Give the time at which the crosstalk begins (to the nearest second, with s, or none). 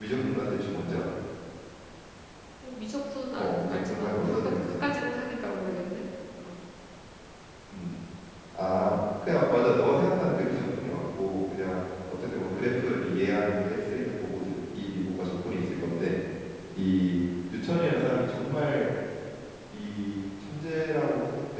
3 s